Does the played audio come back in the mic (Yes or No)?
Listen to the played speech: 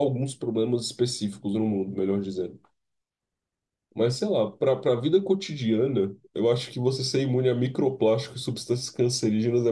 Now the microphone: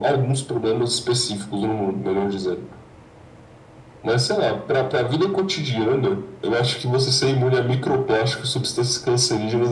Yes